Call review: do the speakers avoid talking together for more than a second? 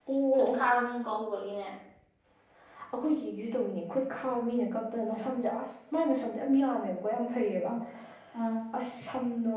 Yes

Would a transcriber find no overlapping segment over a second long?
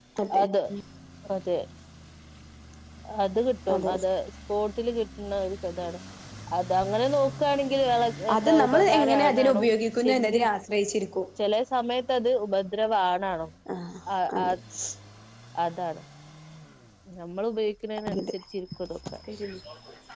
No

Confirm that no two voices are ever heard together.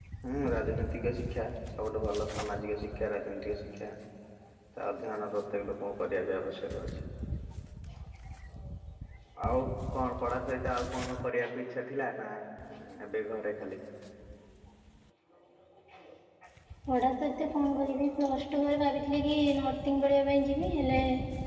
Yes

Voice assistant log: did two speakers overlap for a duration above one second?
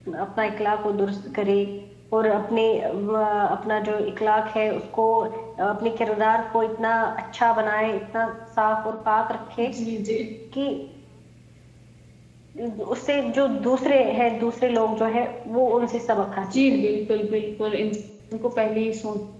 No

